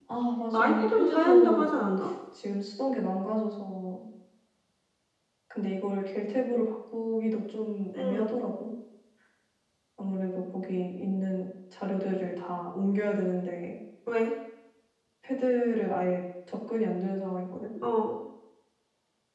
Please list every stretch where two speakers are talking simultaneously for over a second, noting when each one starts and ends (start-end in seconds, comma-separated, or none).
0.5-1.8